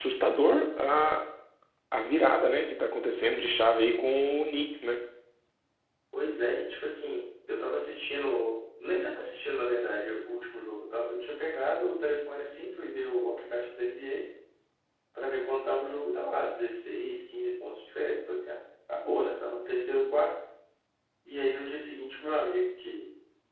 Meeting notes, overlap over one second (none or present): none